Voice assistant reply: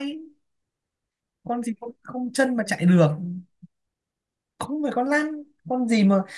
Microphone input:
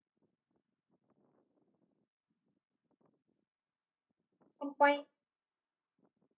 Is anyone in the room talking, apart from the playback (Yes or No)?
Yes